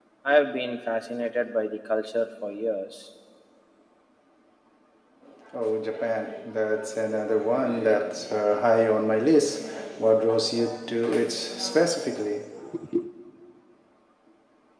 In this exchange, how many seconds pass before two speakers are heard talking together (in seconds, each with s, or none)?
none